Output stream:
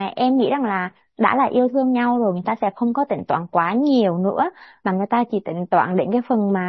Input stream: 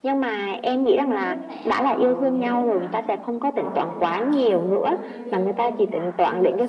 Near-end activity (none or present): present